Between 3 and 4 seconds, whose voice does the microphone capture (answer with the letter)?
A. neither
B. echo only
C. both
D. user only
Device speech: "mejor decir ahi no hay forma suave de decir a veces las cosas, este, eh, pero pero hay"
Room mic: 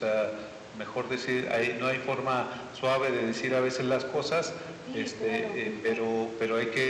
B